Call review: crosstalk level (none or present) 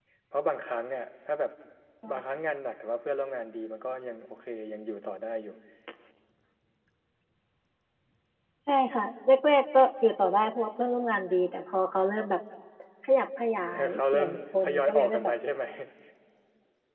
present